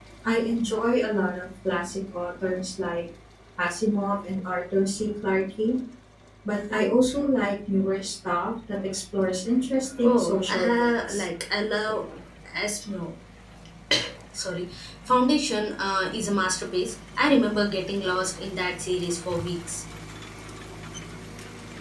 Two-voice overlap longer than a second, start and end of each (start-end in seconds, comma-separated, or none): 10.0-11.2